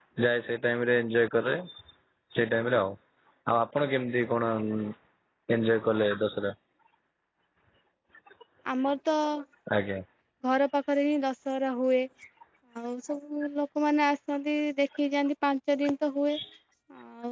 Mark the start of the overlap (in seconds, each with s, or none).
none